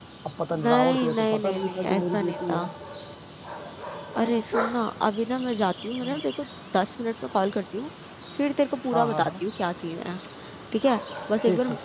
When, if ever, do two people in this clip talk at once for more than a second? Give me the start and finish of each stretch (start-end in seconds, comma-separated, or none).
0.7-2.6